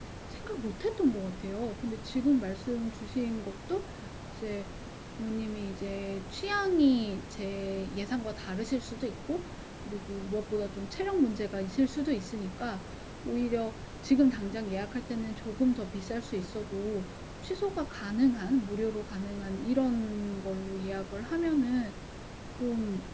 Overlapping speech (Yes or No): No